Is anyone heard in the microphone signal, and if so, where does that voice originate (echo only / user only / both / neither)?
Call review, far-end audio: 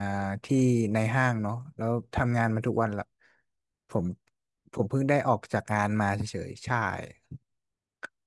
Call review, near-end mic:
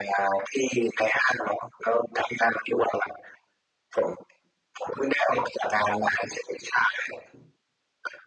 echo only